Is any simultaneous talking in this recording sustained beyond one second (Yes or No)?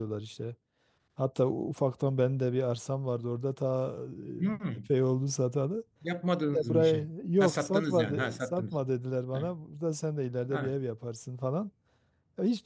Yes